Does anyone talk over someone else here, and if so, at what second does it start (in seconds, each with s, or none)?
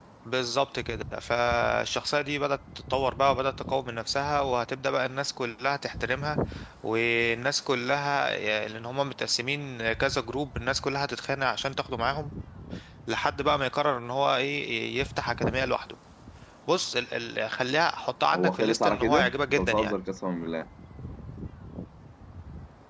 18.3 s